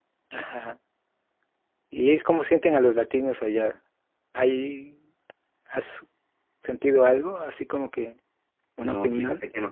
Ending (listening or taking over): taking over